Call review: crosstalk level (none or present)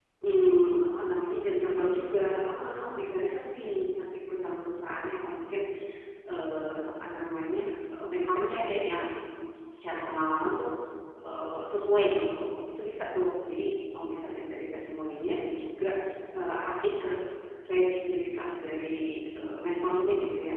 present